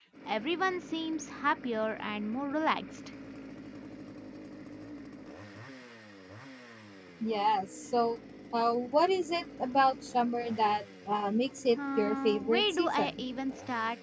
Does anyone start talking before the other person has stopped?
Yes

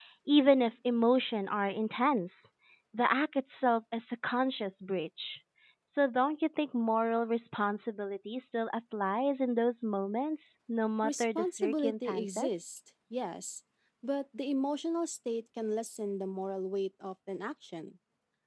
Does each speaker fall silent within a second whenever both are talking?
No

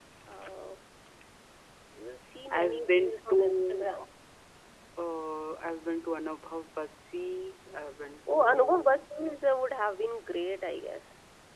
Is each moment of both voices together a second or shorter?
No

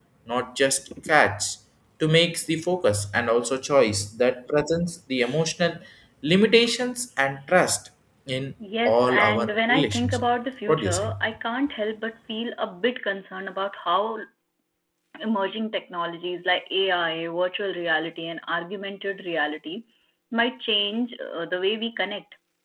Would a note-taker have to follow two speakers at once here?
Yes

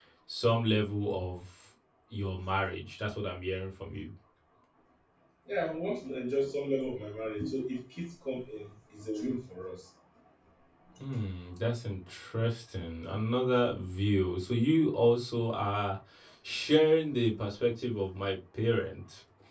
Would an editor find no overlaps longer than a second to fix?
Yes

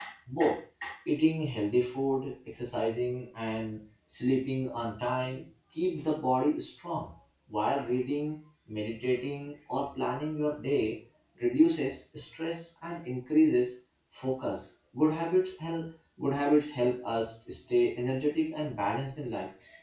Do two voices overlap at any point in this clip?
No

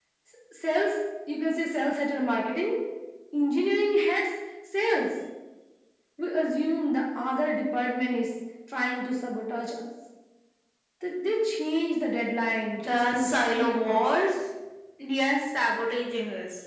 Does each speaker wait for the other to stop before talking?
No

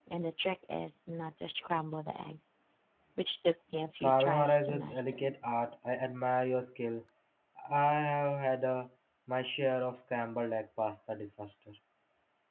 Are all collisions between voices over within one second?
No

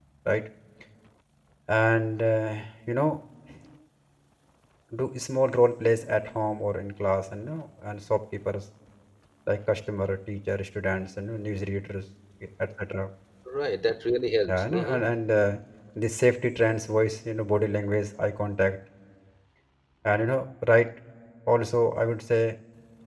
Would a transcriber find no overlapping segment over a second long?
Yes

